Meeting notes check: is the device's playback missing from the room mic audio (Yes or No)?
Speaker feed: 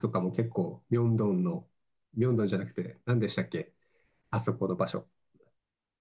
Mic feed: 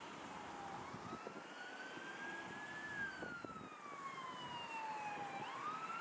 Yes